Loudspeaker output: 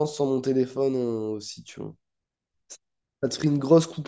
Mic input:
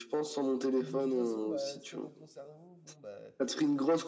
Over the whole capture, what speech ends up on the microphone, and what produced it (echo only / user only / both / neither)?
both